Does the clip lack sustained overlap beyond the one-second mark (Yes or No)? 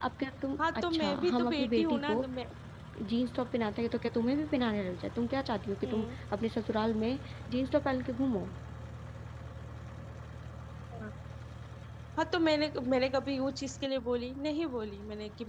No